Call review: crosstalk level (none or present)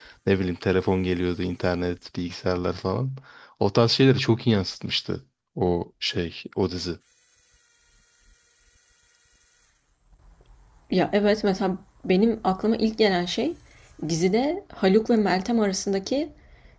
none